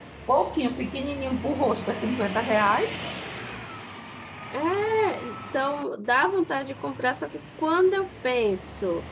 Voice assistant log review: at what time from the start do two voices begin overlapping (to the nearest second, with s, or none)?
none